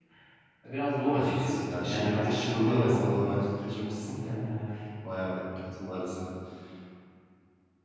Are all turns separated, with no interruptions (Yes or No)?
No